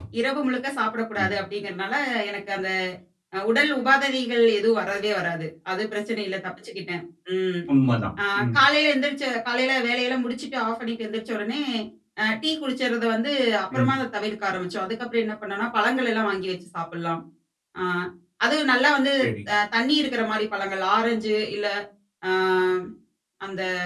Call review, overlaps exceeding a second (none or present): none